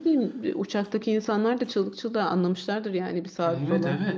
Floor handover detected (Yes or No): Yes